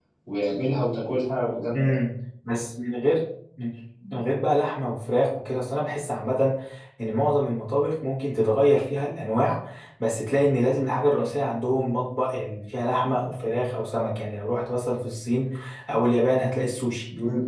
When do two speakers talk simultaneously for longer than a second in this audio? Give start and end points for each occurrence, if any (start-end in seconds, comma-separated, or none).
none